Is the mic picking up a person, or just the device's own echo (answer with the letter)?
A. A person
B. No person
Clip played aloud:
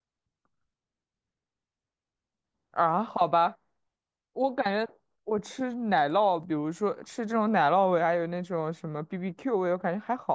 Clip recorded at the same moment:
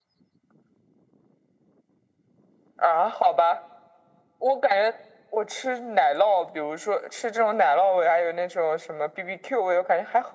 B